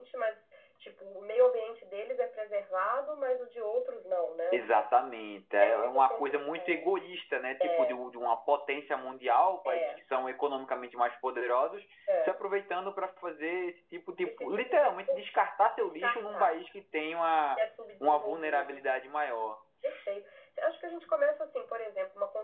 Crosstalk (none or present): present